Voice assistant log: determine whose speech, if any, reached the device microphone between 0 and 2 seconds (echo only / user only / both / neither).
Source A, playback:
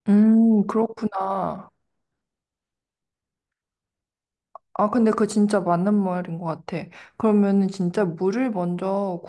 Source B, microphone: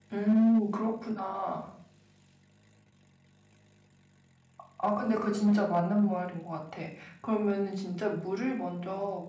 echo only